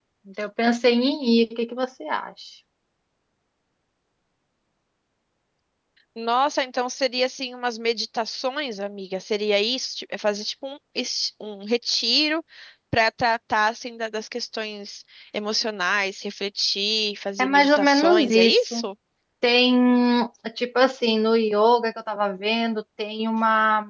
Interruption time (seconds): 17.4 s

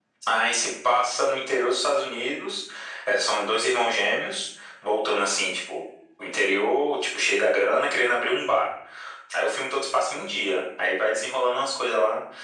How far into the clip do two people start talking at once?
none

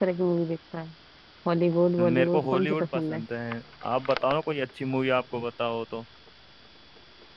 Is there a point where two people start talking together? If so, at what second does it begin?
2.0 s

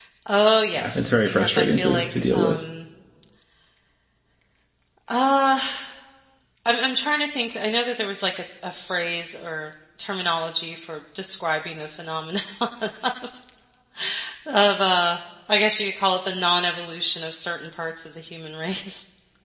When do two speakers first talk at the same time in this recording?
0.7 s

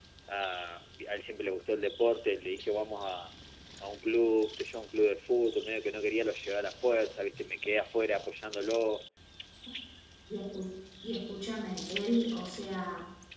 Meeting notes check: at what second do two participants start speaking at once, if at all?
none

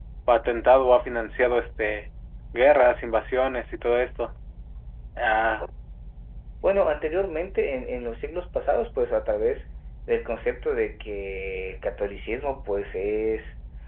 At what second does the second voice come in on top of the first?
none

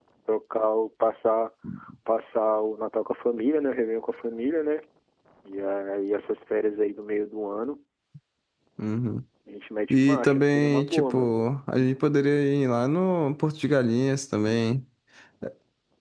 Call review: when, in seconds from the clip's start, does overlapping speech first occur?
9.9 s

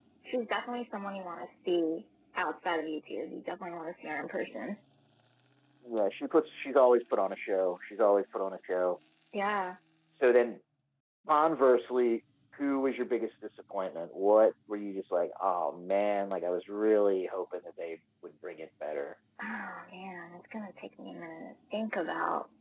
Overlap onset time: none

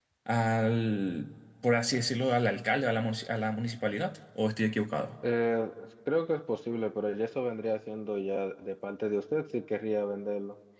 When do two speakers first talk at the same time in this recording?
none

